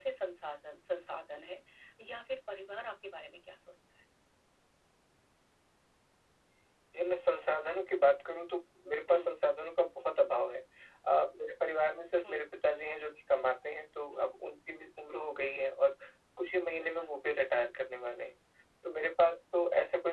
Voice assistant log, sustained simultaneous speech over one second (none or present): none